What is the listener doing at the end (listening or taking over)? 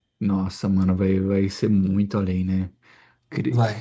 listening